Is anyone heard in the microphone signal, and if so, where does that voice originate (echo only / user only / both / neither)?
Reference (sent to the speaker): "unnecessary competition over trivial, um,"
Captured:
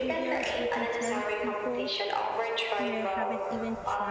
both